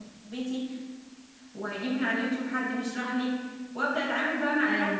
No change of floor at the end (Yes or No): Yes